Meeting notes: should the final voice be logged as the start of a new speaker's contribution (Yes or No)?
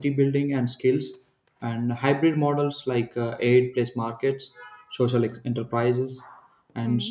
No